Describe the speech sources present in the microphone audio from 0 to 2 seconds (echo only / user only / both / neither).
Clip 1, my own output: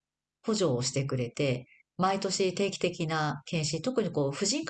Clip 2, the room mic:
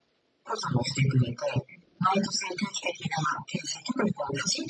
echo only